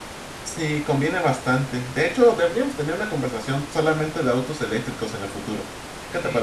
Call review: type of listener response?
taking over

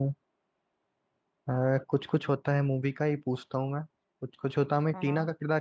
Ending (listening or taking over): listening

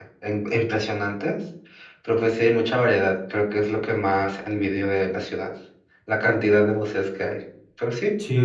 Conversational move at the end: taking over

